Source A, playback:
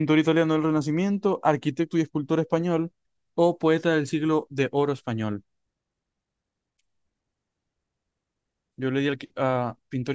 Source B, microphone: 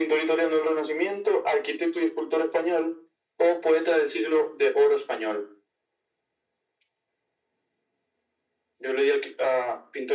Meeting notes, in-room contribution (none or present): none